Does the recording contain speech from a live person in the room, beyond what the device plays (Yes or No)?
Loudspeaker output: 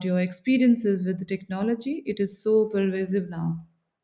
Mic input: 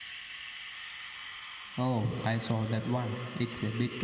Yes